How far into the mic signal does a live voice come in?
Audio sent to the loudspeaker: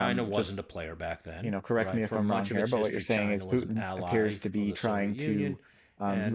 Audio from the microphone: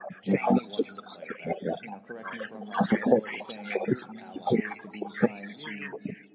none

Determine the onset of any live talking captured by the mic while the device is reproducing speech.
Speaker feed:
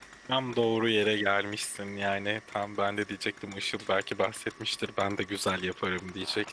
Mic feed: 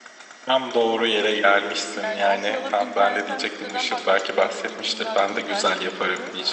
1.9 s

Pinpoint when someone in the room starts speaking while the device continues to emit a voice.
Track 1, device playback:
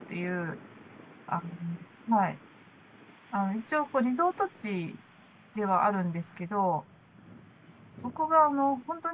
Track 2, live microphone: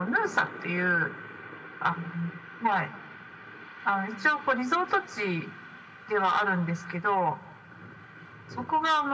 none

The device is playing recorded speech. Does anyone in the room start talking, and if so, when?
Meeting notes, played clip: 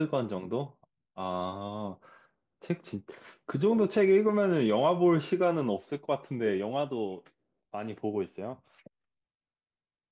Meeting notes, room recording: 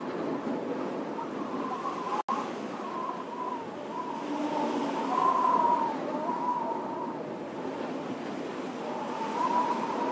none

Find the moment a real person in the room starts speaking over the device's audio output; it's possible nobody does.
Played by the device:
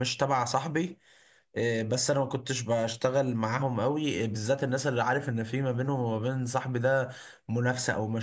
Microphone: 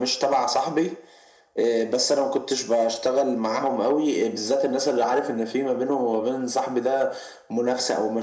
none

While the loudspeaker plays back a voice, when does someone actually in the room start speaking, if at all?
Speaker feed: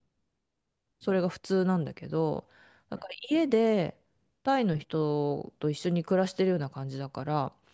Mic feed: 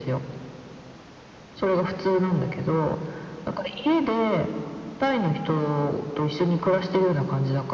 none

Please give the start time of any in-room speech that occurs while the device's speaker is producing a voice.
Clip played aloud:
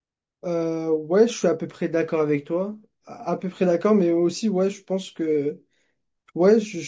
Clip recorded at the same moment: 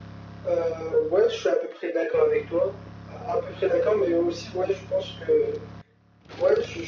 none

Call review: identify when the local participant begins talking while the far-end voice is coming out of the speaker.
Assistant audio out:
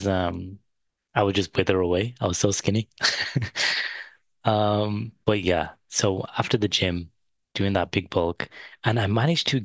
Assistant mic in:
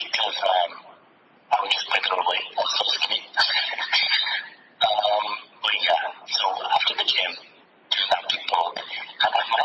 none

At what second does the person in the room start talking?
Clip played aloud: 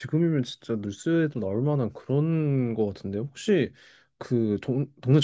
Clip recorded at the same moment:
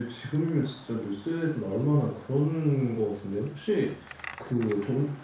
none

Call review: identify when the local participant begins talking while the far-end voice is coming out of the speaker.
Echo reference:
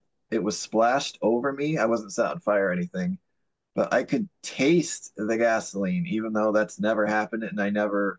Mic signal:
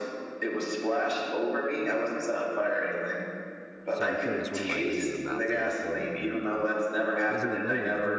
3.9 s

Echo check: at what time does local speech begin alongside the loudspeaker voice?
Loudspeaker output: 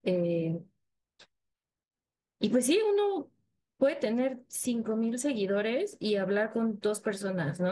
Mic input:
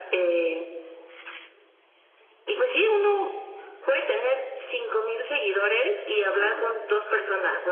6.3 s

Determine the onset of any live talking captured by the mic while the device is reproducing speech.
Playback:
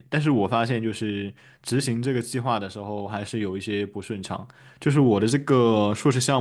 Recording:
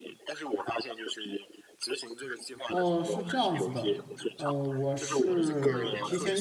2.7 s

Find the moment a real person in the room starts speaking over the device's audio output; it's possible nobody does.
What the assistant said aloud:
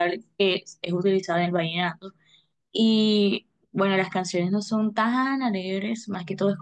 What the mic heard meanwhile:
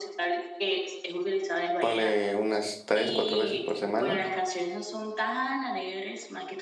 1.8 s

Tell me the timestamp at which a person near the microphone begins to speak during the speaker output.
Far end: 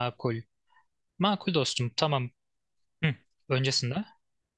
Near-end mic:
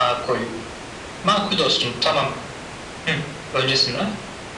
none

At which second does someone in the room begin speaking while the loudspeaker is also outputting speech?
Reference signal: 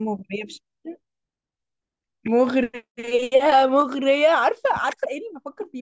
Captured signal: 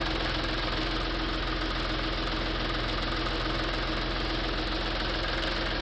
none

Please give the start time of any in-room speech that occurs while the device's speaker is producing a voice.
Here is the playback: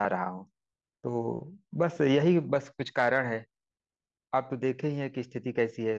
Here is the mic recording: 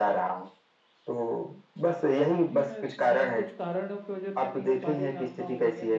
2.3 s

